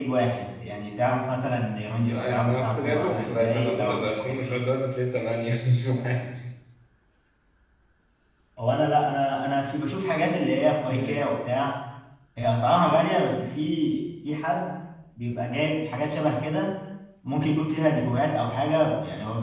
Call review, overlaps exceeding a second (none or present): present